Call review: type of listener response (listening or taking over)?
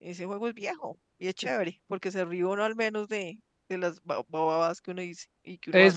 taking over